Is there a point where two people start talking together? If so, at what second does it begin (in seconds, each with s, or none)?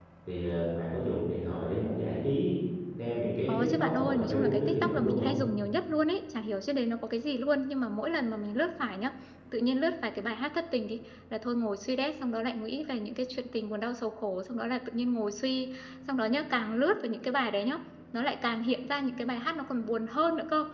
3.5 s